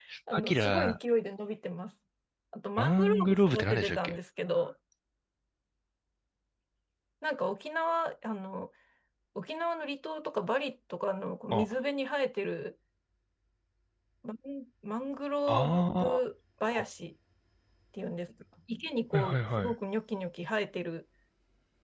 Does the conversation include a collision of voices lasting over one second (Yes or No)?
Yes